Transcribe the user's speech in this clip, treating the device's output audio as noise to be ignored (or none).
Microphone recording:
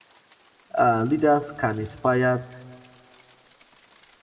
uh, leaders can inspire